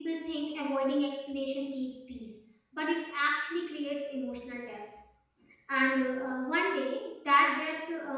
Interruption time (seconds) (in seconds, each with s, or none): none